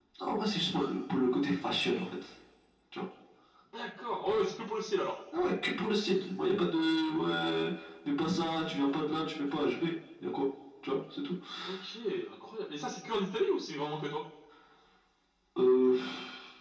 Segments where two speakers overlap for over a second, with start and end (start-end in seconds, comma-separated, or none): none